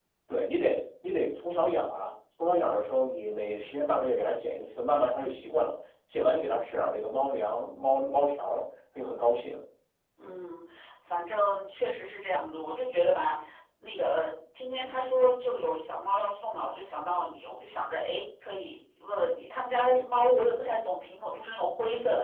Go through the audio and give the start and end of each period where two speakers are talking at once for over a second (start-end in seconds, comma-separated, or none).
none